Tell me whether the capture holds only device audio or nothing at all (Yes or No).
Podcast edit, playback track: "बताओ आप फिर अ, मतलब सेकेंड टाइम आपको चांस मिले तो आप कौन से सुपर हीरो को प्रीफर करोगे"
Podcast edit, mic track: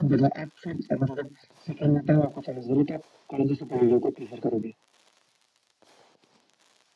Yes